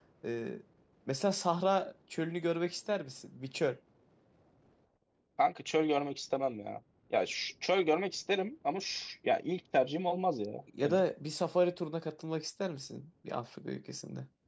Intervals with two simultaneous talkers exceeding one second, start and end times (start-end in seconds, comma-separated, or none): none